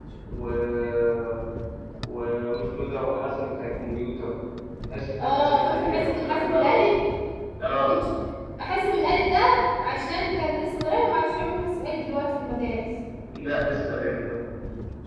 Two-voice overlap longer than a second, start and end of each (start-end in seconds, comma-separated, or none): 5.2-6.8